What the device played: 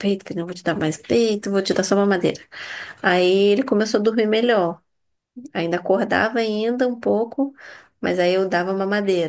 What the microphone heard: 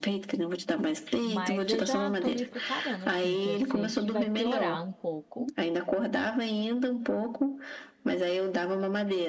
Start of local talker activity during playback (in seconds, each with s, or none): 1.2 s